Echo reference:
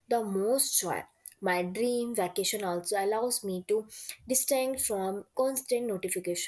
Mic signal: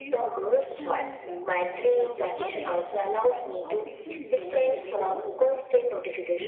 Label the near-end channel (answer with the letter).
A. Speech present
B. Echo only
A